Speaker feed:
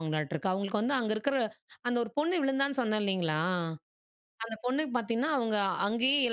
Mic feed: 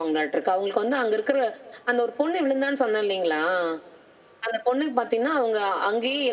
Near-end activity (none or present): none